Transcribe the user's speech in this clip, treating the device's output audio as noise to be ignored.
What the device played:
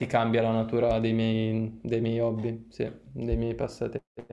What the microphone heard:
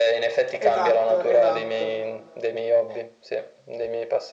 Esatto, esatto.

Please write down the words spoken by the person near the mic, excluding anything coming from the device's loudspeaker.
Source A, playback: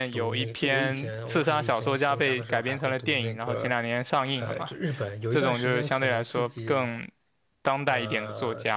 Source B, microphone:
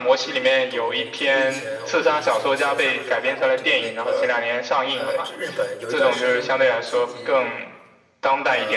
none

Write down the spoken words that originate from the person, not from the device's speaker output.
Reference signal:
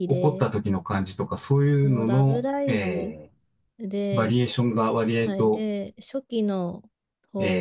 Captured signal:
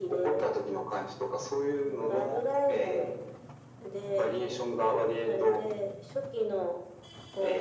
none

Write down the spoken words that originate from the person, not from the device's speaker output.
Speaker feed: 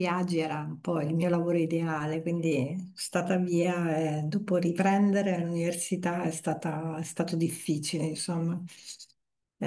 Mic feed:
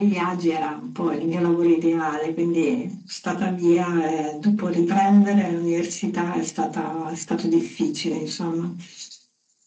none

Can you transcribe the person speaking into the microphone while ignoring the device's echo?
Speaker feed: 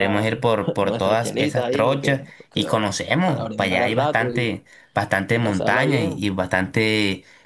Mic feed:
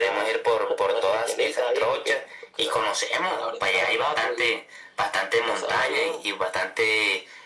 none

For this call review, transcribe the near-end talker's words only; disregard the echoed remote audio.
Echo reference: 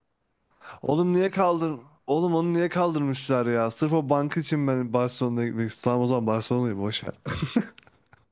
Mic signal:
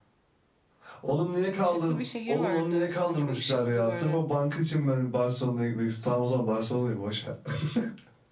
ışıklı bir şehir vardı. Sanki bu ışıklı böyle.

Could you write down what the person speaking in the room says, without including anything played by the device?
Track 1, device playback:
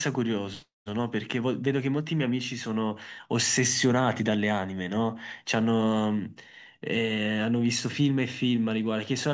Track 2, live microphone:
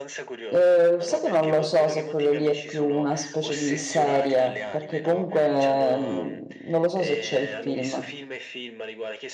eh, sai che non lo so se quello lì è più una specie di serie, perché comunque mm, non lo so se c'è il film.

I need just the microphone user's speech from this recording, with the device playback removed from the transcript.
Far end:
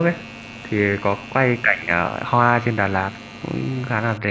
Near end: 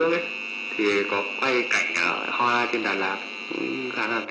none

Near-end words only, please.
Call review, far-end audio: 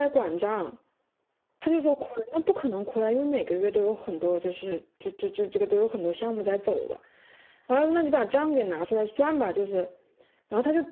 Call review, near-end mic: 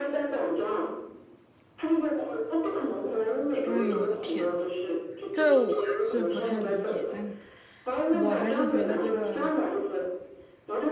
哎呦，我的天呐！这我是不太理解，但我还是觉得这个

